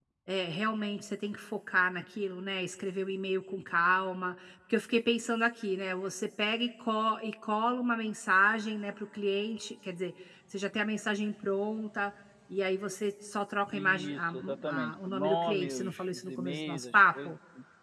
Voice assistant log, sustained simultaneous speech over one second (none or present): present